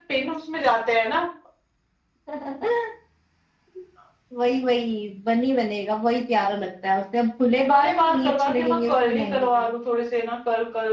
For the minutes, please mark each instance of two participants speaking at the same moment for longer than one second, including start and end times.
7.7-9.7

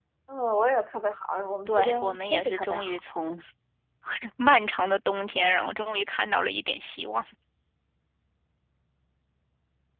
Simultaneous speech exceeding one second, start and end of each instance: 1.7-2.9

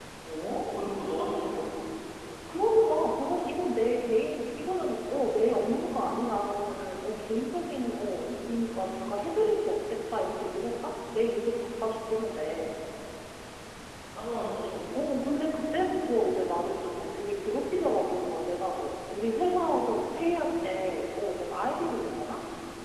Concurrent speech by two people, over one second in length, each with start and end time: none

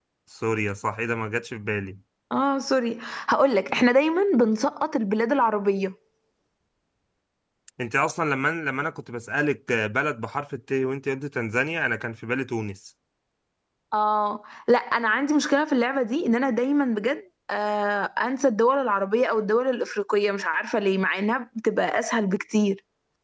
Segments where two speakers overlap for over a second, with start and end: none

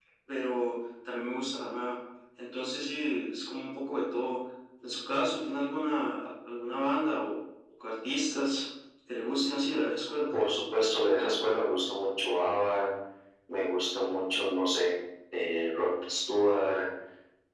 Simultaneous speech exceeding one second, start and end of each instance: none

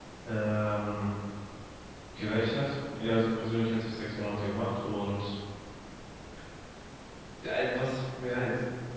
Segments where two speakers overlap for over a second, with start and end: none

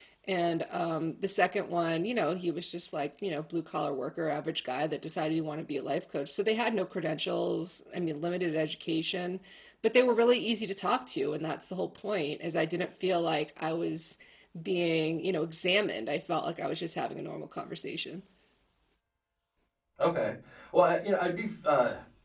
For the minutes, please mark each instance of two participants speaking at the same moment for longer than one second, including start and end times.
none

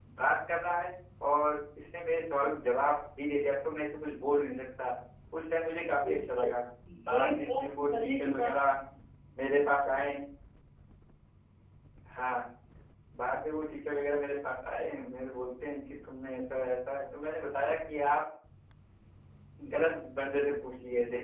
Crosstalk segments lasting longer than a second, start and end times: 7.1-8.5

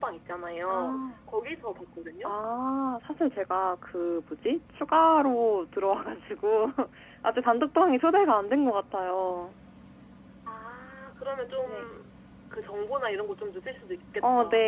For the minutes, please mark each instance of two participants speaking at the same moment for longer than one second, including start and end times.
none

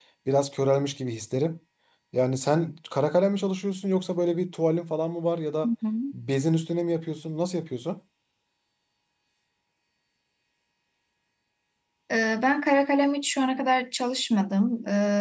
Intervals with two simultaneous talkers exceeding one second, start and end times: none

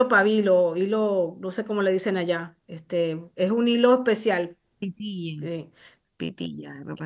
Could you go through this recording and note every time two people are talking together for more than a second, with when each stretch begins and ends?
none

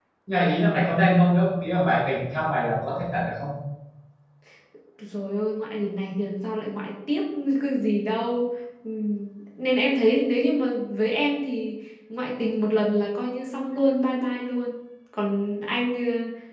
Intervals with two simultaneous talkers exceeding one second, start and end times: none

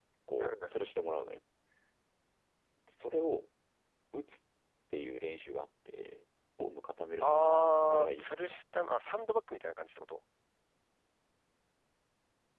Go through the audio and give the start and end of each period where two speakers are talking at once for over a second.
7.2-8.6

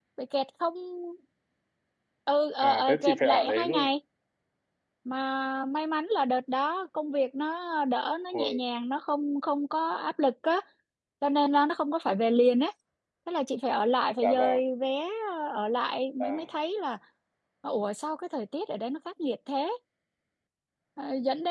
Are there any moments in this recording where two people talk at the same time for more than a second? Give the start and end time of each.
2.6-3.9

